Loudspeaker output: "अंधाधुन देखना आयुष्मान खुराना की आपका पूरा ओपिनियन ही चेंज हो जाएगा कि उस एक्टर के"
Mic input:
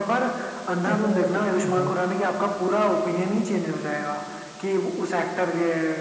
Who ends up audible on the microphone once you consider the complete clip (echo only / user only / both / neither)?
both